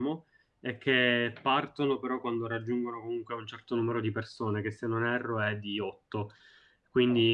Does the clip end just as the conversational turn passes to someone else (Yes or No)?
No